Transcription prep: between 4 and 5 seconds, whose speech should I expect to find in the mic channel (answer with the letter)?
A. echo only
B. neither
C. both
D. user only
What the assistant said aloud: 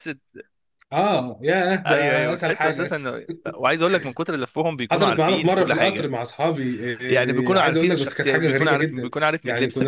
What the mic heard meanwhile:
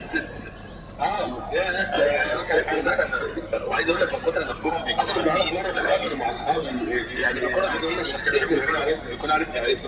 A